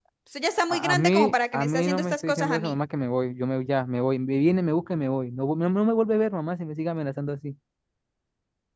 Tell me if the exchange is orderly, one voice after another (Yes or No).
No